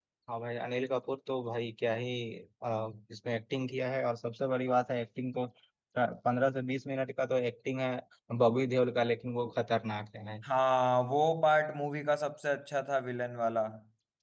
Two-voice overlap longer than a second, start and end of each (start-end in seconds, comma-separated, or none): none